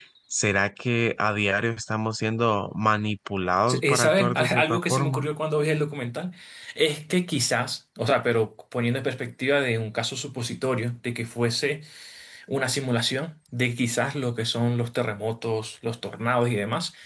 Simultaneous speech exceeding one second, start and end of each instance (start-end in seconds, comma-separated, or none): 3.7-5.3